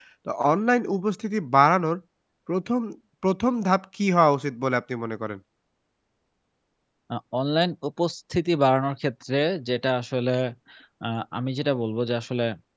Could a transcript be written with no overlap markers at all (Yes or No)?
Yes